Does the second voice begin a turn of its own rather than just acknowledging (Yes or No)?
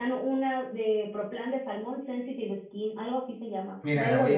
Yes